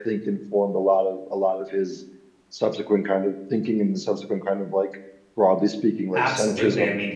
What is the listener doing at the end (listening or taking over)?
taking over